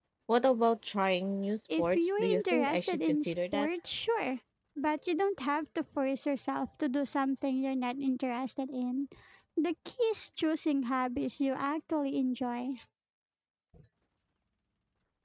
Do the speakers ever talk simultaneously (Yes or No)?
Yes